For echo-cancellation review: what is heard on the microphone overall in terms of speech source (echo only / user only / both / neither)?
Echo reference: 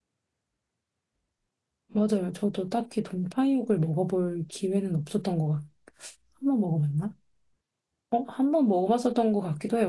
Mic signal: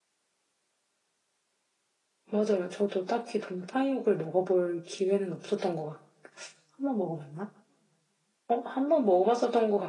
echo only